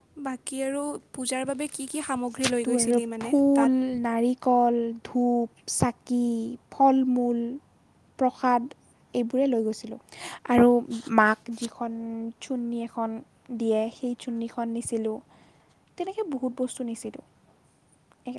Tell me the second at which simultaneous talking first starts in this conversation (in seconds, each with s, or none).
2.4 s